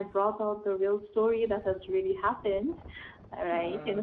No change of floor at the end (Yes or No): Yes